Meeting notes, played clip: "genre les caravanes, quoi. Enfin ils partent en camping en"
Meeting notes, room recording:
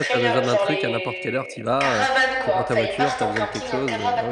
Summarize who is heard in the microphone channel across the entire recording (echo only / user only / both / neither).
both